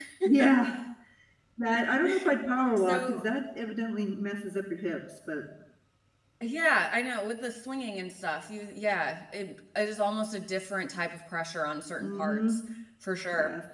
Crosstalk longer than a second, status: none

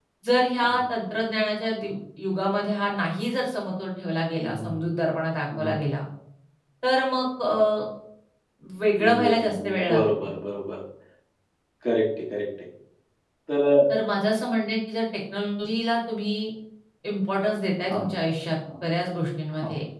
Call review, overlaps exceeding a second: present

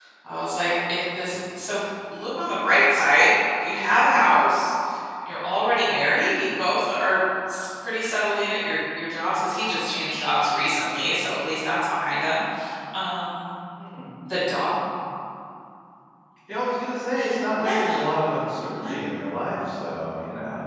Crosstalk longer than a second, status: none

